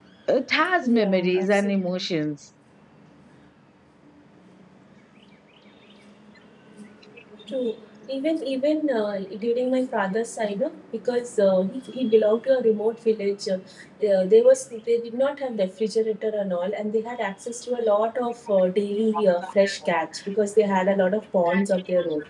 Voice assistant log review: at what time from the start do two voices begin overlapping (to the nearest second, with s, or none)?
1 s